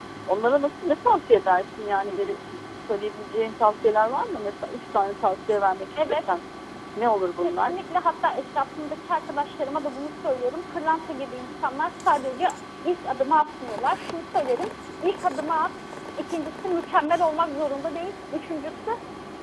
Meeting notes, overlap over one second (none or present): none